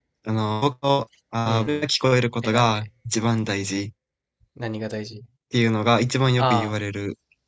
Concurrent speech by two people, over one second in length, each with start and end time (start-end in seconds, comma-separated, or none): none